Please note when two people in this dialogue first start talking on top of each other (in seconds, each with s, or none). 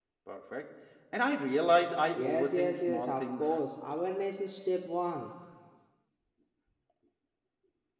2.1 s